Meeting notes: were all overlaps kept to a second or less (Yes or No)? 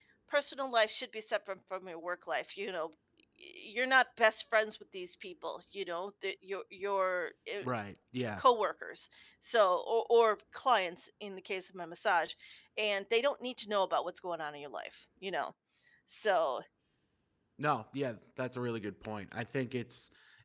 Yes